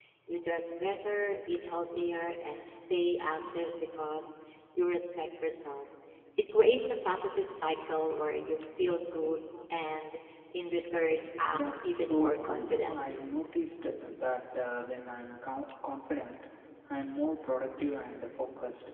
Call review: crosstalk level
present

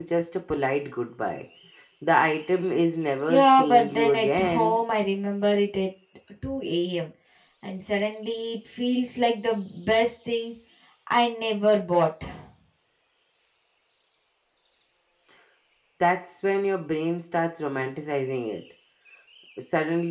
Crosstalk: present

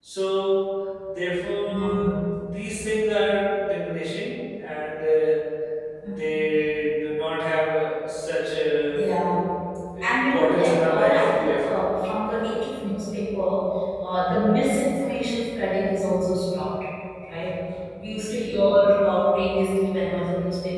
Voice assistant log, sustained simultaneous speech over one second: present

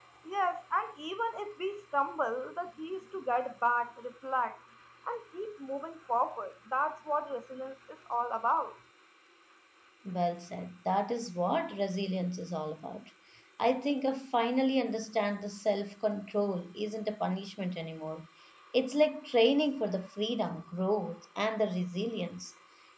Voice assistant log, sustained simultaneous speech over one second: none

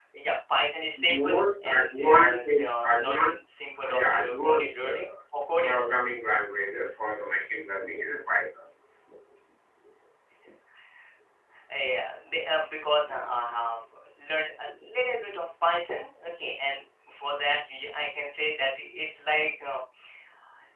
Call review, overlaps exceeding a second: present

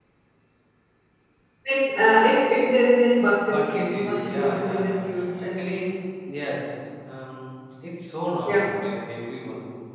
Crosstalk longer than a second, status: present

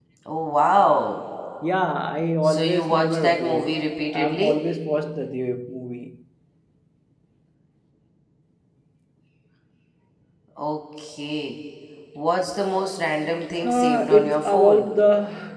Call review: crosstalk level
present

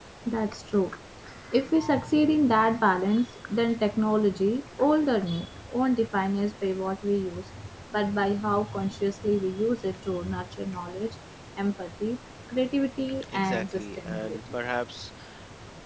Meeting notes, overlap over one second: present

